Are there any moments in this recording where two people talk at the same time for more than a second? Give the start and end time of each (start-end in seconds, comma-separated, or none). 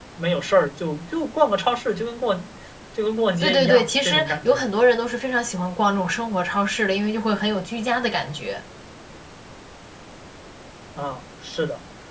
3.4-4.7